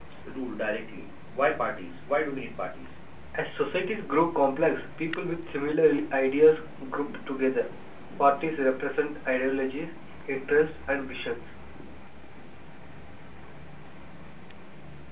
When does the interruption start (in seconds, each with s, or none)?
none